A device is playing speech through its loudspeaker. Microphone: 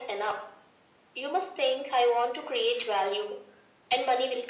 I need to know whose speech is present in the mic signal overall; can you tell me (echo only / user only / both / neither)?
echo only